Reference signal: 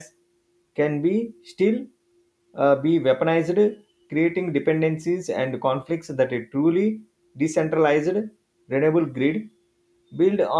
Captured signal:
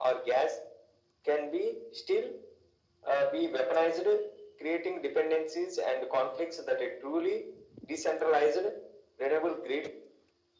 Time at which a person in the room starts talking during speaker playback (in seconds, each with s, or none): none